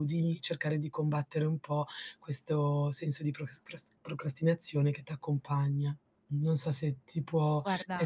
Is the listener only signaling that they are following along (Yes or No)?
Yes